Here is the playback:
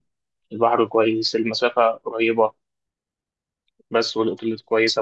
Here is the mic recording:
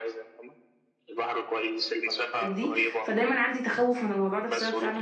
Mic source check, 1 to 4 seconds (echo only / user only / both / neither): both